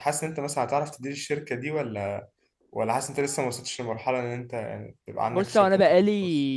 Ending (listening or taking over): taking over